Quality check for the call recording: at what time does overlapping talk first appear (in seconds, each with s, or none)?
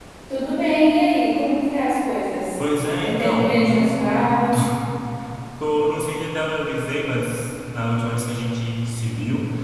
3.0 s